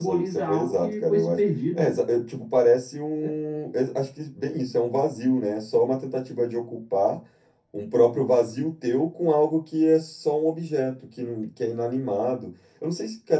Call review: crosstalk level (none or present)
present